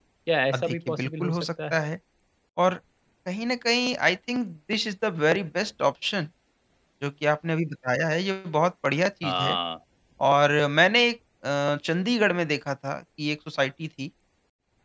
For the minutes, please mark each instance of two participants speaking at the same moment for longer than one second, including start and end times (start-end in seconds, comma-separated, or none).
0.5-1.8